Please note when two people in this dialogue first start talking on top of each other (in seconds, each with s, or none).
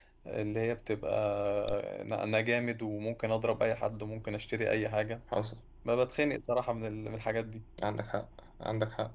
none